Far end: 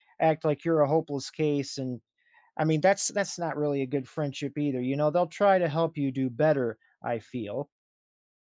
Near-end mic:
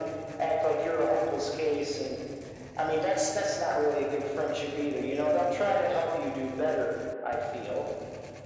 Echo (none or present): present